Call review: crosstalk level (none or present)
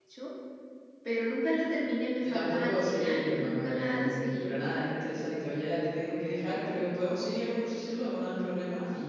present